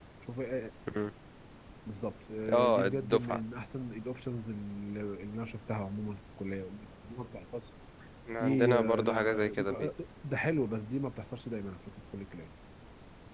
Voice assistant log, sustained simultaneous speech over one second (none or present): present